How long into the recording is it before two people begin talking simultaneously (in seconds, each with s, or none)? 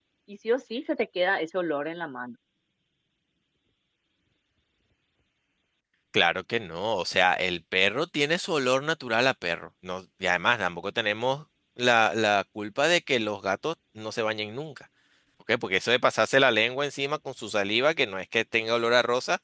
none